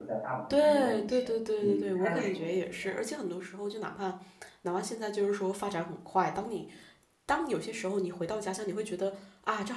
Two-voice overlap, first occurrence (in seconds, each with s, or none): 0.5 s